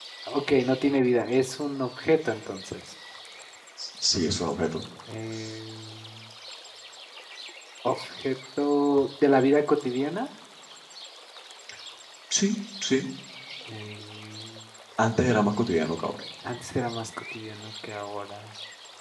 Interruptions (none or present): none